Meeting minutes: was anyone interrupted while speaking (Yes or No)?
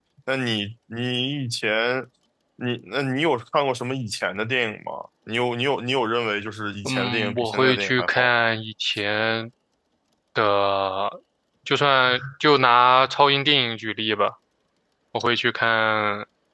Yes